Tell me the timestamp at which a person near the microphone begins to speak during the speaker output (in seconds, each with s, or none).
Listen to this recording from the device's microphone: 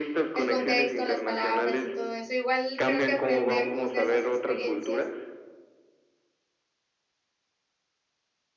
0.3 s